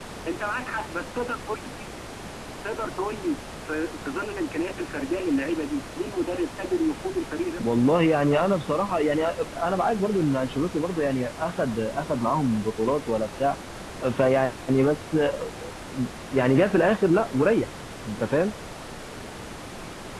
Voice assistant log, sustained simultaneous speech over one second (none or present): none